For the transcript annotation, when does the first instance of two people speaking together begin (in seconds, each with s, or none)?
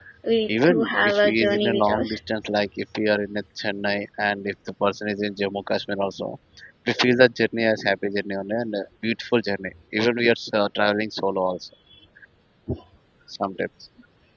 0.7 s